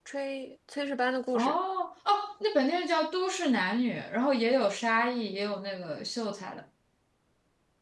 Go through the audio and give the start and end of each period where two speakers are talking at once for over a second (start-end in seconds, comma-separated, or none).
none